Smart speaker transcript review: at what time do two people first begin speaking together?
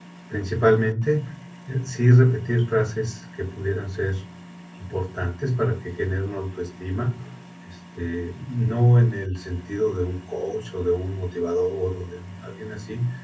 none

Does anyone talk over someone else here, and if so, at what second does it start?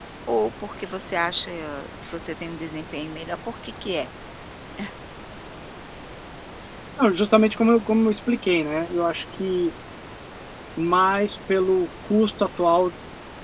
none

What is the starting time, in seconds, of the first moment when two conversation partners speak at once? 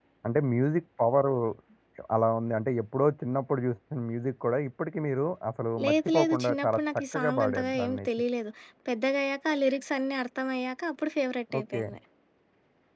5.8 s

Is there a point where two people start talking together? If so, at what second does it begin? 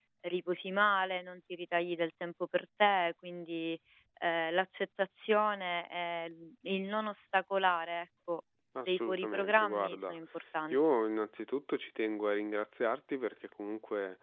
8.9 s

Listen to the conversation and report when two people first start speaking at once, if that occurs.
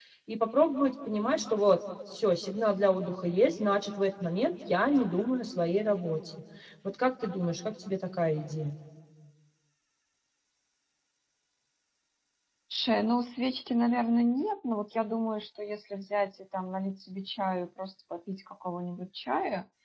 none

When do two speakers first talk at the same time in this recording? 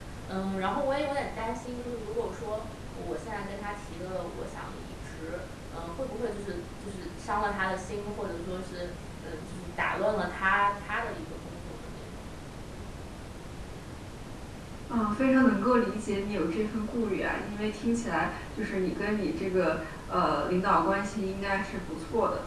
none

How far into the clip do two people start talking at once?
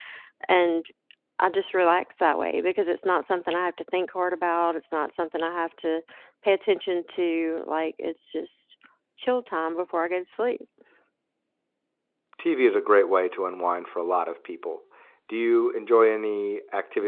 none

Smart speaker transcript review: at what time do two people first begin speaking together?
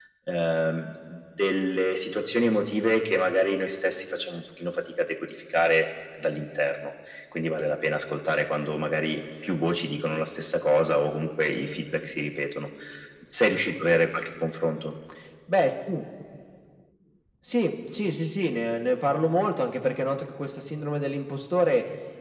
none

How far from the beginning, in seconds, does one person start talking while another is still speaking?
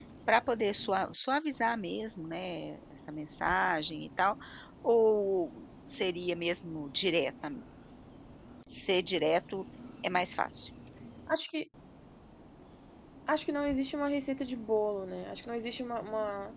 none

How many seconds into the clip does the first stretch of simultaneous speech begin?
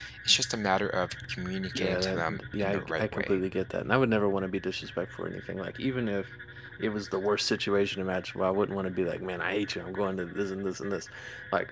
1.8 s

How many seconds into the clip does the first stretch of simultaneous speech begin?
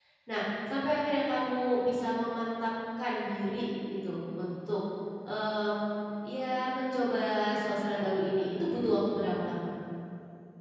none

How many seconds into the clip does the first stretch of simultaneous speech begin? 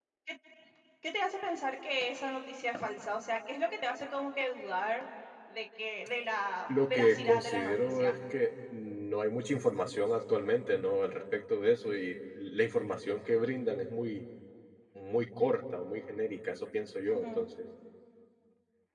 6.7 s

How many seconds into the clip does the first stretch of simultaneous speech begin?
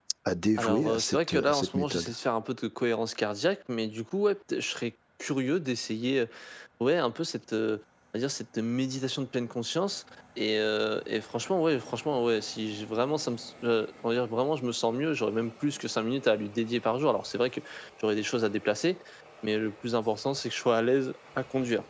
0.6 s

